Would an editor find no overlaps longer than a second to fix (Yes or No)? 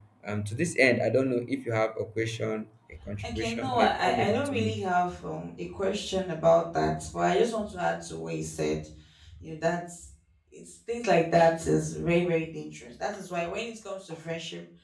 No